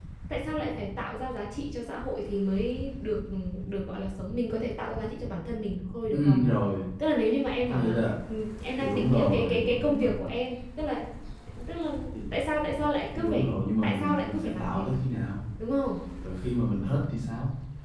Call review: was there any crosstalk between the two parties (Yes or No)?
Yes